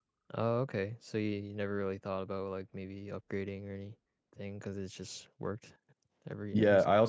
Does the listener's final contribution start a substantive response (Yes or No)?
Yes